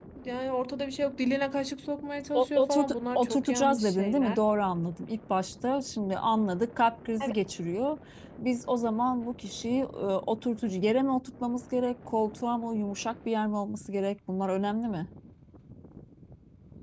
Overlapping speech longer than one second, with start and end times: 2.3-4.4

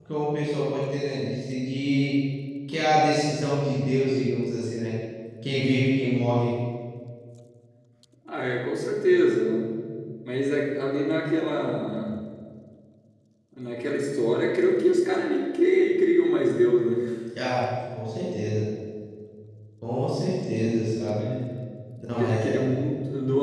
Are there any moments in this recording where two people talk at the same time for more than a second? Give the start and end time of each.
none

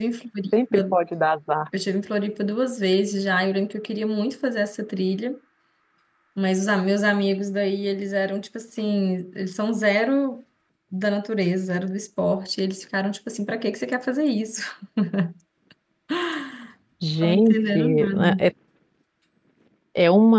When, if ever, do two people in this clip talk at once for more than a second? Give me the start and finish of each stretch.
17.2-18.4

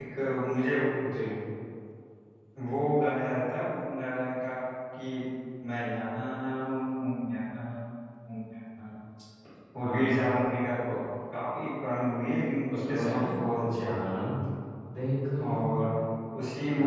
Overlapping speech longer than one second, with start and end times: 12.7-14.0

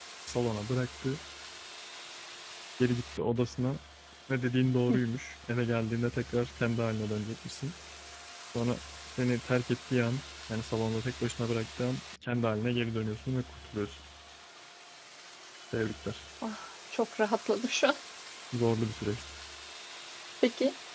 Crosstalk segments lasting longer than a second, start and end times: none

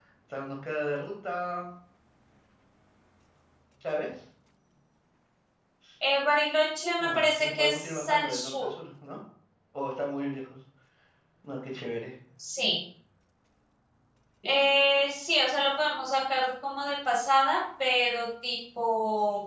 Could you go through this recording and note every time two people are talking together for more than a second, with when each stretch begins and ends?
7.0-8.7

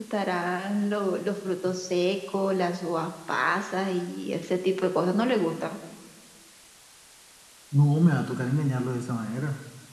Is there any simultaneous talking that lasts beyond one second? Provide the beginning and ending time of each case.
none

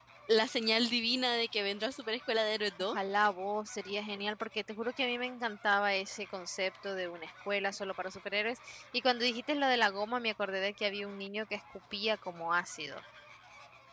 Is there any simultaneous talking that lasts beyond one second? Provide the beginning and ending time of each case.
none

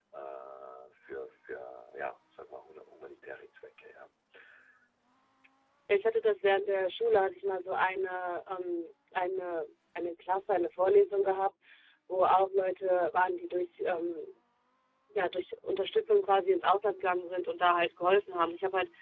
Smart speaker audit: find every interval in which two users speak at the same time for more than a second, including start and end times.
none

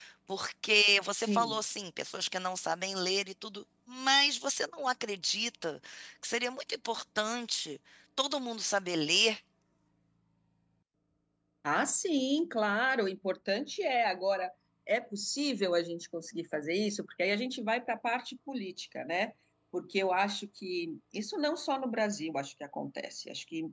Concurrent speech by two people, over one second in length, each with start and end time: none

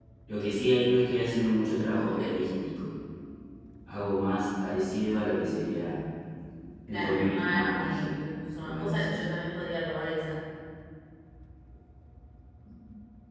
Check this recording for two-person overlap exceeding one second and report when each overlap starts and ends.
6.9-8.2

